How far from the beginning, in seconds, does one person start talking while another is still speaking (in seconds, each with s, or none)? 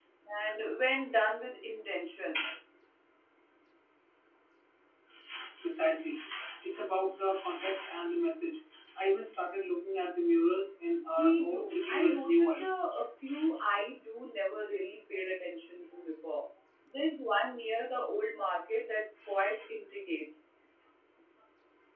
11.2 s